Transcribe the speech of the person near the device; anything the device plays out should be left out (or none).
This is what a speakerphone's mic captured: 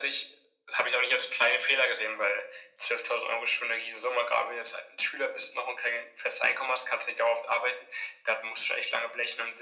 none